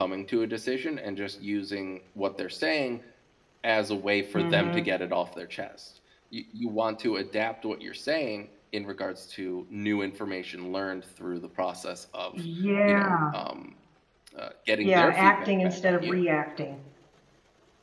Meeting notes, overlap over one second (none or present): present